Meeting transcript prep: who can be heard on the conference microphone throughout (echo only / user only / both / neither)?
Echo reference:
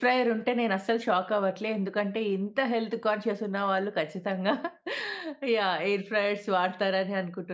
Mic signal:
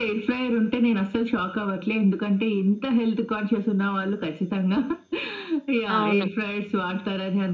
both